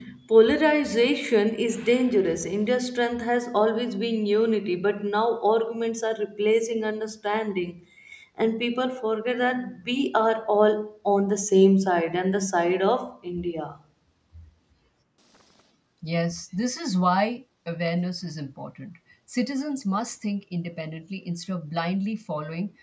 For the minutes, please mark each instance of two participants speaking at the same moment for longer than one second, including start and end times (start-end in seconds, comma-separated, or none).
none